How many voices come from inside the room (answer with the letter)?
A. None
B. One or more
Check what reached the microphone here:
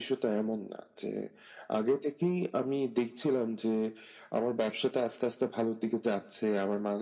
A